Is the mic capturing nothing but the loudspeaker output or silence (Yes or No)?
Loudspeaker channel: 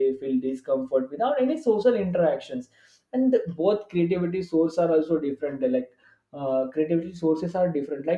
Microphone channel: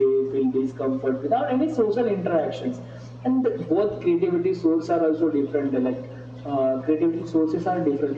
Yes